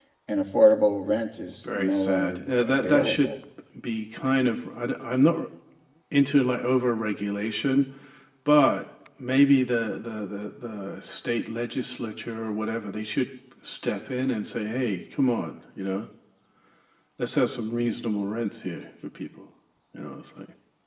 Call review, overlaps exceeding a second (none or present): present